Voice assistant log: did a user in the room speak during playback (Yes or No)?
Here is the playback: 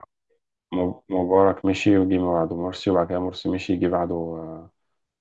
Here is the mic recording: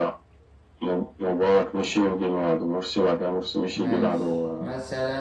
Yes